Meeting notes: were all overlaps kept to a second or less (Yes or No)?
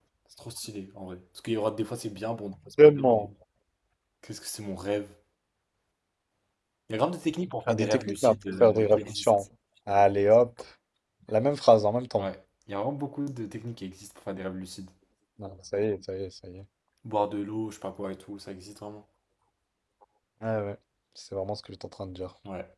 No